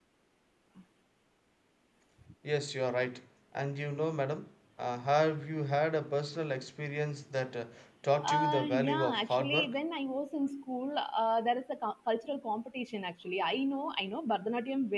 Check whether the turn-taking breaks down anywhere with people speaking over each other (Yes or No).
Yes